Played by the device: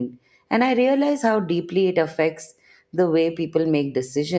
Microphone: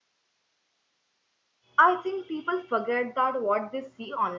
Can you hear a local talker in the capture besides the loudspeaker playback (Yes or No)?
Yes